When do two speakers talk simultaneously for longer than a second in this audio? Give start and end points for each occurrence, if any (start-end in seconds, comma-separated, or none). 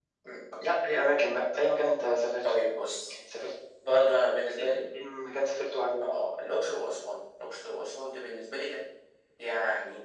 none